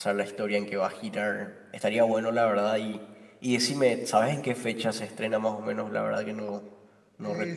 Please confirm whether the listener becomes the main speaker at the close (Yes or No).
Yes